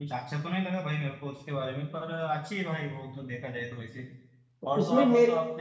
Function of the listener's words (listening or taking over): listening